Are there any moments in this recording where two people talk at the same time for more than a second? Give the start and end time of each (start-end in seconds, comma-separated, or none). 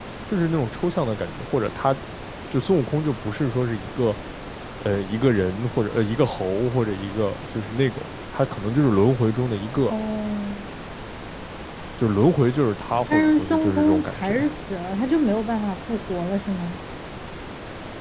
13.1-14.3